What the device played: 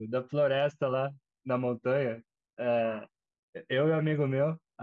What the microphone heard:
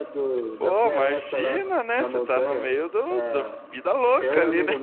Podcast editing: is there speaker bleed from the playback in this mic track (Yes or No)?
Yes